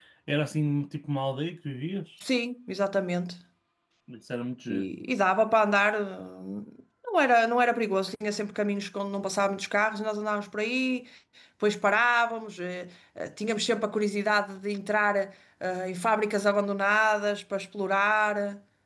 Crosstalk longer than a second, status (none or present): none